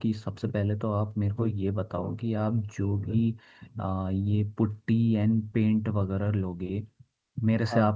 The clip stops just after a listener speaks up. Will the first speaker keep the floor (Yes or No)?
Yes